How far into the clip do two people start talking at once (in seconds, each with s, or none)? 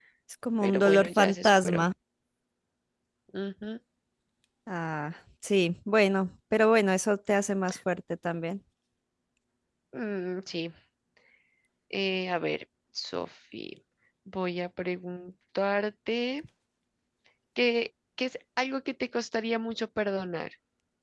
0.6 s